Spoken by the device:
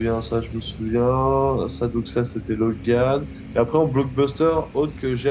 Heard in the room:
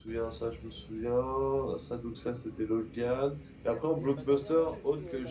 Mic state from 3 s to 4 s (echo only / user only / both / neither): both